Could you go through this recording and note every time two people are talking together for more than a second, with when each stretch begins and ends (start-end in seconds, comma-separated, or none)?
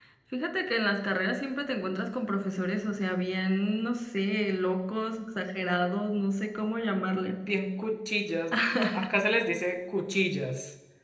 none